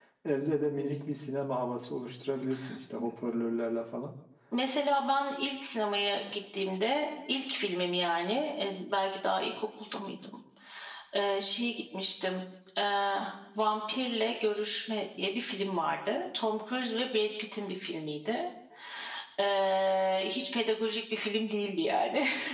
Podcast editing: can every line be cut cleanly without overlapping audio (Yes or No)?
Yes